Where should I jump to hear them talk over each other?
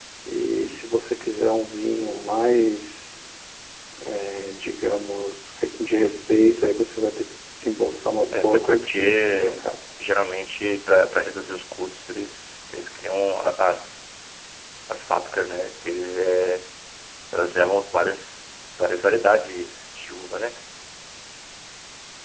8.3 s

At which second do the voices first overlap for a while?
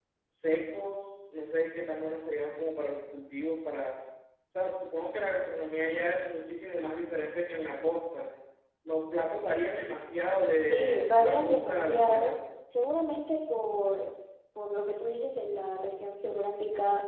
10.6 s

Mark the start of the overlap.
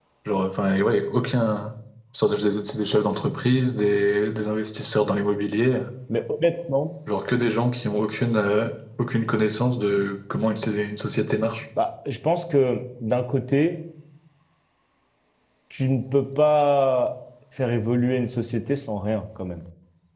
none

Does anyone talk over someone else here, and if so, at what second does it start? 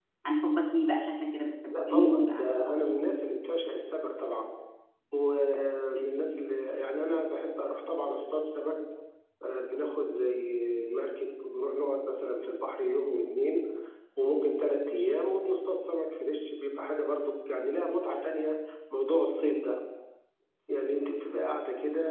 1.7 s

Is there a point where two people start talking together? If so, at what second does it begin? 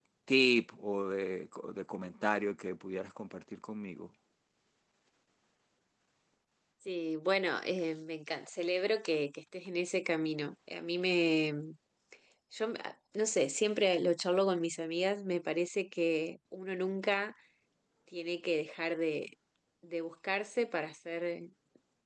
none

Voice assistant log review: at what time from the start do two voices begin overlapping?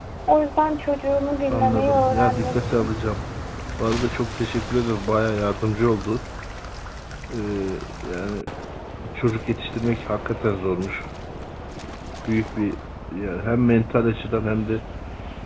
1.5 s

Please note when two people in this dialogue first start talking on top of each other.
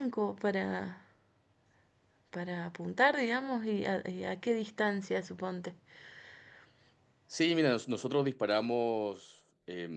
none

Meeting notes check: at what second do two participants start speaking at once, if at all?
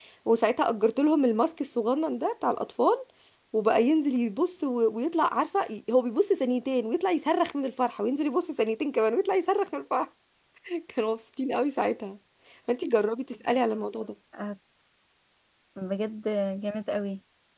none

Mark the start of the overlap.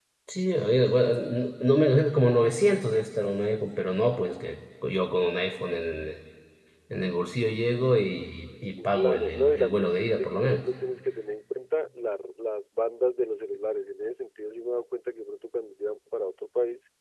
8.8 s

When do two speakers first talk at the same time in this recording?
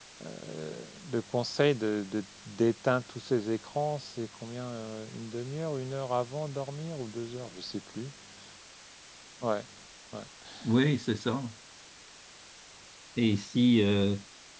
none

